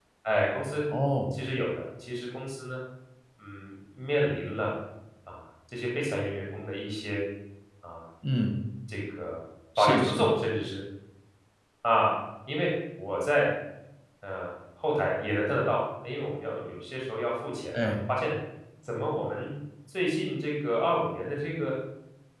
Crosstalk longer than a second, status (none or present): none